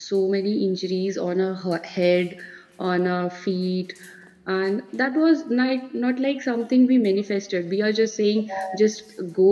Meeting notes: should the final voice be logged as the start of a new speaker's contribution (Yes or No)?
No